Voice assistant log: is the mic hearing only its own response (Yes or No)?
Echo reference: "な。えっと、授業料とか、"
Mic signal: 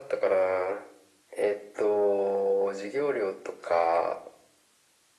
Yes